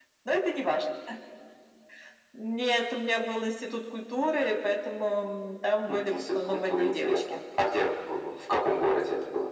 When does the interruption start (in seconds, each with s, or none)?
5.8 s